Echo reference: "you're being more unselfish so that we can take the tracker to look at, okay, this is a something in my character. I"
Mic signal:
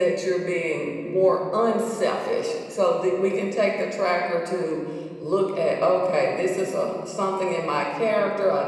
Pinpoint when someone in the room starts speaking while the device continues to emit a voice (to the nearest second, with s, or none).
none